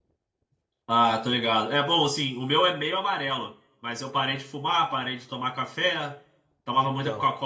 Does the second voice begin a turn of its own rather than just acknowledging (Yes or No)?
No